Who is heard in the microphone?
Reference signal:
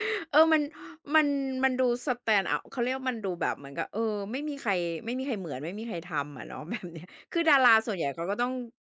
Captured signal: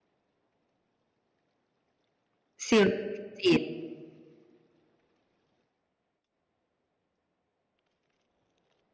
user only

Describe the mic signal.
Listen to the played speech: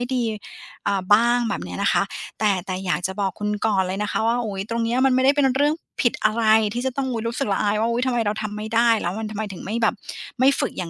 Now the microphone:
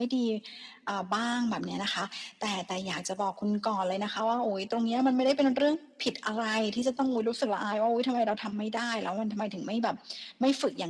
echo only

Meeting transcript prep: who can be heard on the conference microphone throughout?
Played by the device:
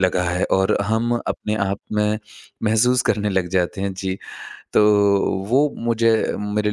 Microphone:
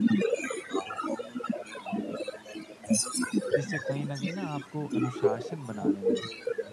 both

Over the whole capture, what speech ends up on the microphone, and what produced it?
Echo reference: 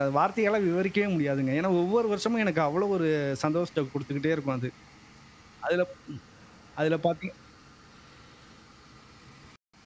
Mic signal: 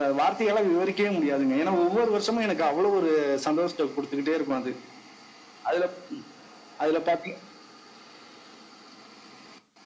echo only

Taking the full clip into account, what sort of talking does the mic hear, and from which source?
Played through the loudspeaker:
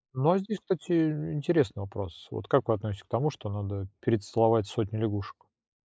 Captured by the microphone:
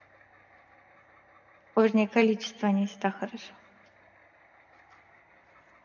user only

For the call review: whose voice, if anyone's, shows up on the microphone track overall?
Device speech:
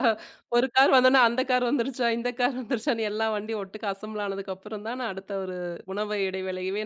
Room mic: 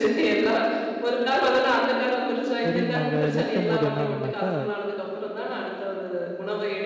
both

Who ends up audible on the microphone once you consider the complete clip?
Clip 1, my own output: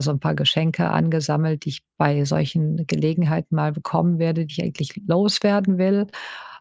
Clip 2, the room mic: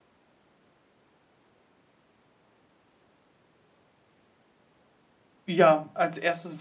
user only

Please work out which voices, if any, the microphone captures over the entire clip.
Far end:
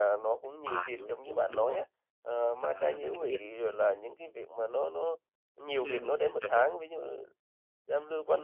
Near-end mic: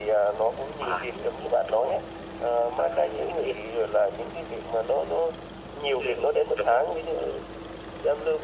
echo only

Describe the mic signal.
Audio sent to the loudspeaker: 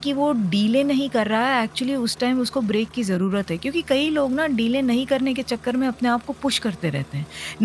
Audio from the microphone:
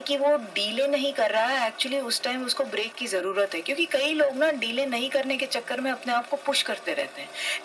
echo only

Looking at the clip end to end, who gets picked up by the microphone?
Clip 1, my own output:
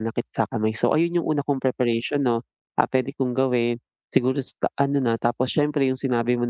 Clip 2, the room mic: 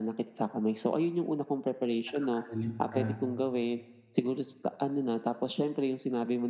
both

